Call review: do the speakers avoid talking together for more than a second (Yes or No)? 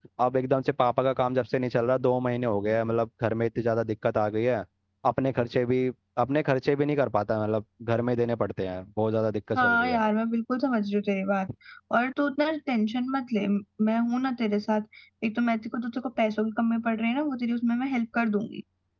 Yes